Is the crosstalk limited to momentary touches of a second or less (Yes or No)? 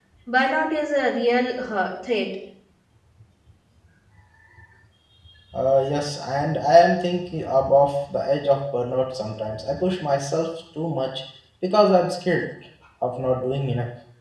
Yes